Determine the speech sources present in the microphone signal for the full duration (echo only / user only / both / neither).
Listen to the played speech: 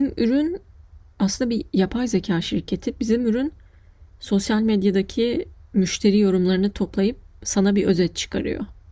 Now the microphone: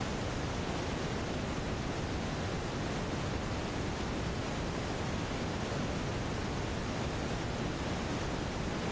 neither